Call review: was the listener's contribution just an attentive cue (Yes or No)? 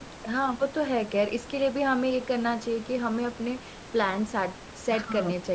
Yes